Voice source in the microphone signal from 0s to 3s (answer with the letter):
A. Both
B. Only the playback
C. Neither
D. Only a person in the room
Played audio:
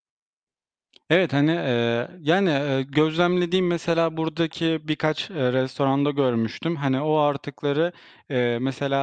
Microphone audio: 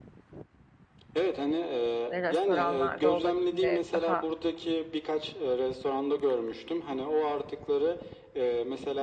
A